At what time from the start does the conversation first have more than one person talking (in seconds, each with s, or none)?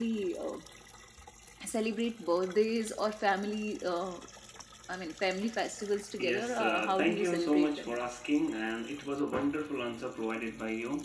6.2 s